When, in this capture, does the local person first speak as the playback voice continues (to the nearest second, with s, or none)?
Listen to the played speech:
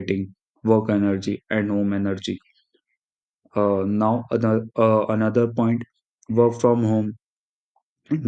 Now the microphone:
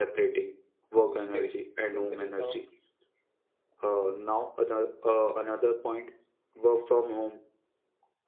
1 s